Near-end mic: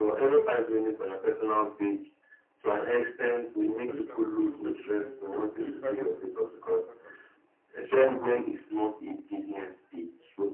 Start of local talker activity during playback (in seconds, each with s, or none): 3.5 s